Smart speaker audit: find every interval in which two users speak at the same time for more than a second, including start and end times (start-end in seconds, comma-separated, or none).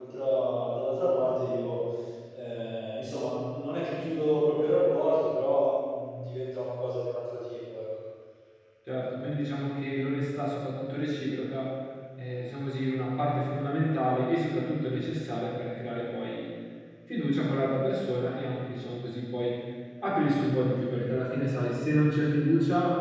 none